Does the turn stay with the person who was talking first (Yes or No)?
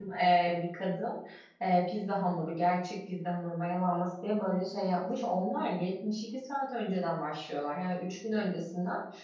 Yes